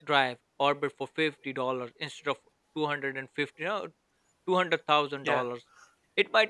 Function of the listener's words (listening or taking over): listening